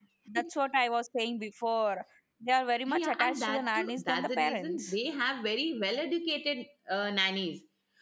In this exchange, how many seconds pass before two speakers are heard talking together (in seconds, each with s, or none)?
2.9 s